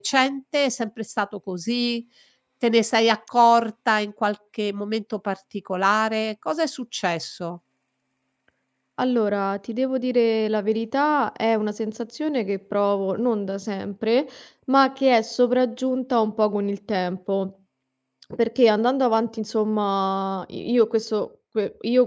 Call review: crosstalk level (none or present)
none